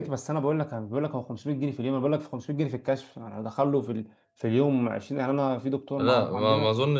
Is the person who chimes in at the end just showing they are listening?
No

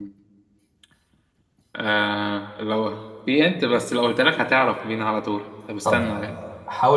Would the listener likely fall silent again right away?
No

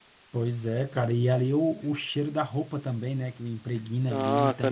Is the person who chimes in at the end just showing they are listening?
No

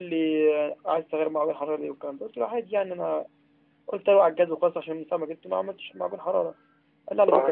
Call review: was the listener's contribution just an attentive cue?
Yes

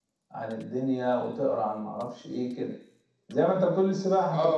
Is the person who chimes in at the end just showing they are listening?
No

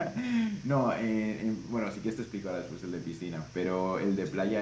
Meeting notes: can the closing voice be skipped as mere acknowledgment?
Yes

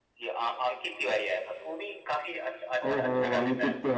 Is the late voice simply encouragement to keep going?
No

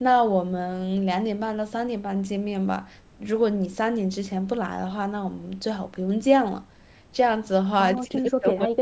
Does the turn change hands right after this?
Yes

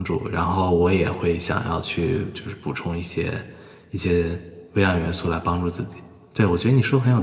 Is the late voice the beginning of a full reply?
No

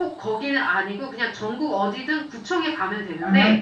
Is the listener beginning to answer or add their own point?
No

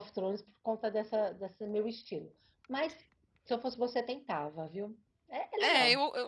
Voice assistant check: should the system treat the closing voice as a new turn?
Yes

